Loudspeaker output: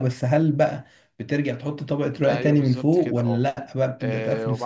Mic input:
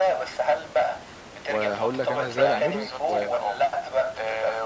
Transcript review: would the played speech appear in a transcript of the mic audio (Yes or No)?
Yes